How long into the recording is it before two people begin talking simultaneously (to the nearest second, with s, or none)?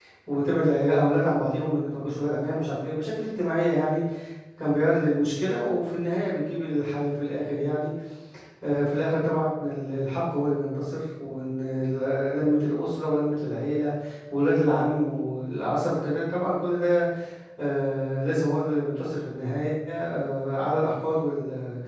none